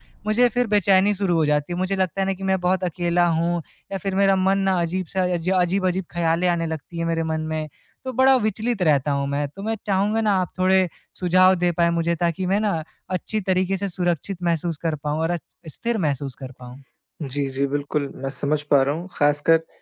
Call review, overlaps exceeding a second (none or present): none